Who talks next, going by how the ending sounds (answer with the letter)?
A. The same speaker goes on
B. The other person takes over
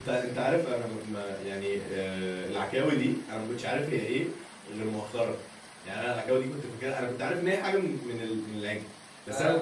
A